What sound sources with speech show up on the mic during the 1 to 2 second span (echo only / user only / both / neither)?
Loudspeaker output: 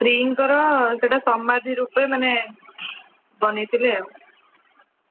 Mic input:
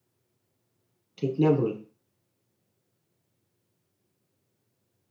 user only